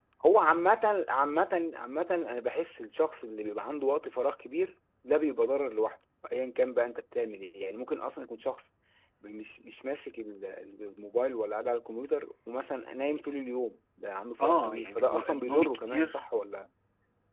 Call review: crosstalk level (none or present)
present